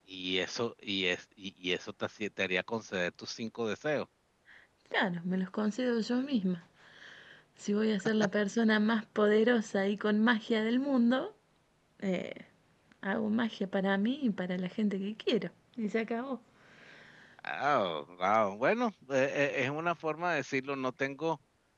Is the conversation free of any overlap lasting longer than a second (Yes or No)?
Yes